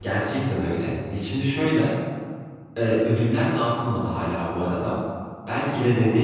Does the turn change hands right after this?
No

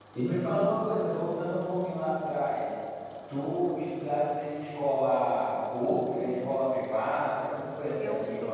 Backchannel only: No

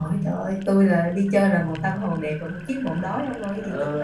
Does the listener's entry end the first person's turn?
Yes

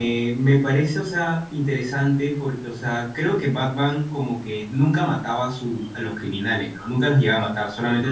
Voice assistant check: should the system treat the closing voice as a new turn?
No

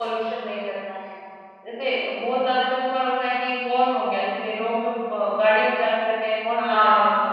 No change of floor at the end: No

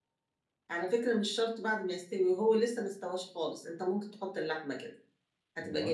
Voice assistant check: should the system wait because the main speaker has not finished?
Yes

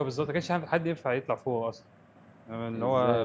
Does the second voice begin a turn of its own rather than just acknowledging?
Yes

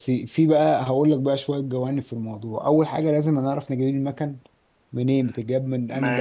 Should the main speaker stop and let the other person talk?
Yes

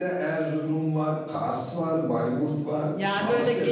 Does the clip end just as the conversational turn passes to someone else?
Yes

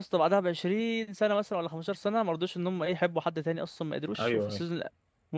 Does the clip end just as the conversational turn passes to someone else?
No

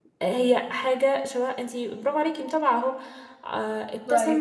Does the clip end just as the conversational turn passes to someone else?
No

